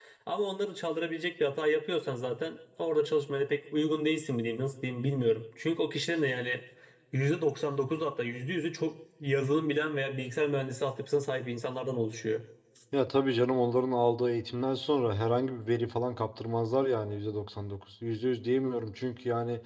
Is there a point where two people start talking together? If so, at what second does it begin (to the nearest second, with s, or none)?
none